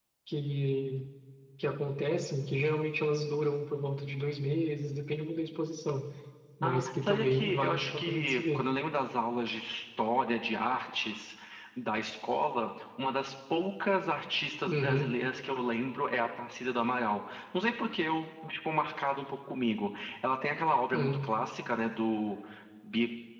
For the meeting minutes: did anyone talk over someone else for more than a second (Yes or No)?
Yes